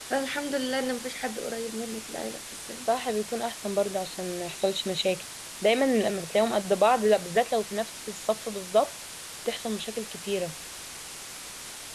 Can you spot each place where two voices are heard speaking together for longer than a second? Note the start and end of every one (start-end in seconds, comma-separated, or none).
none